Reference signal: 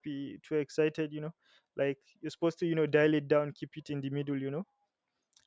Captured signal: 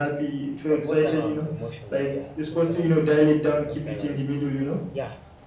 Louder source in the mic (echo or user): echo